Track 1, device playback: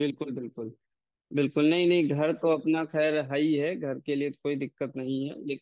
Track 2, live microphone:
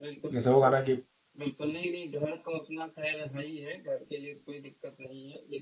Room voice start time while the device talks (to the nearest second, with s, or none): 0 s